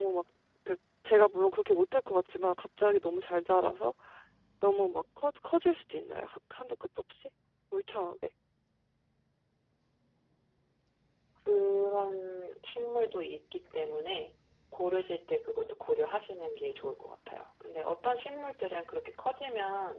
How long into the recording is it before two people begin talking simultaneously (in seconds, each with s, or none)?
none